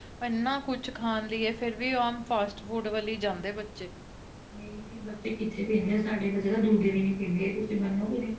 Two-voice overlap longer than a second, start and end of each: none

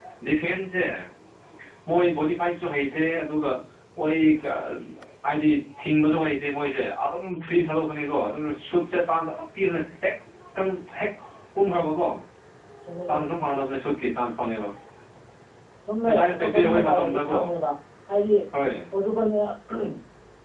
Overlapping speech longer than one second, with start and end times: 16.1-17.4

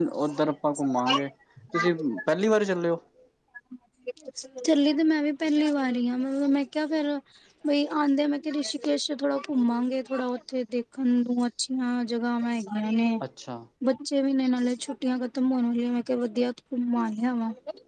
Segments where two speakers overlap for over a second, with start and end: none

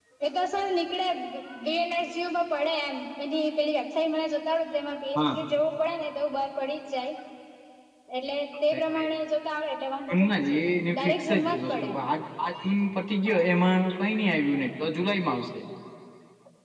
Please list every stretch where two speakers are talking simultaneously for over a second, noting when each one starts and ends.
10.1-11.9

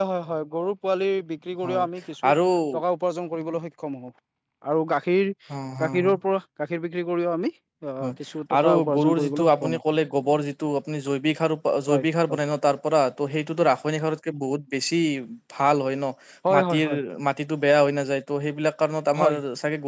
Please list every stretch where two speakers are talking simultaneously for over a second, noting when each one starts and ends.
8.6-9.8

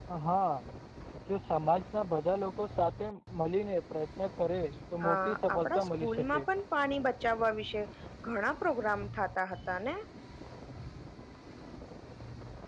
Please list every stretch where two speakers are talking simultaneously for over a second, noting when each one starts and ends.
5.0-6.4

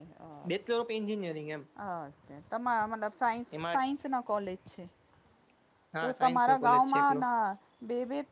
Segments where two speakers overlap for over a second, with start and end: 6.0-7.2

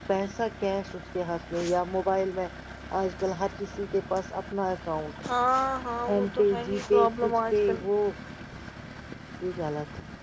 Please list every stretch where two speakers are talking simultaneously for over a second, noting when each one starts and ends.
6.1-7.8

